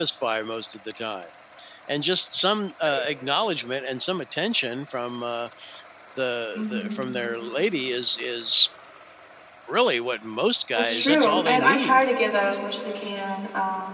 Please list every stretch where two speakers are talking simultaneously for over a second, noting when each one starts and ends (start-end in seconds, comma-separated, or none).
10.8-12.0